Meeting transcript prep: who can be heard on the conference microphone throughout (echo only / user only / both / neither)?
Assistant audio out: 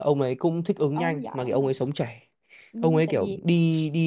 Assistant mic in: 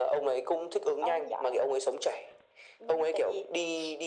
echo only